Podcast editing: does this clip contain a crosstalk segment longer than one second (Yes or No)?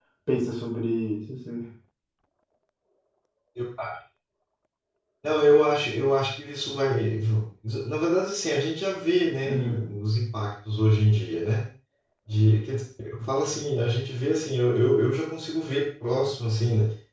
No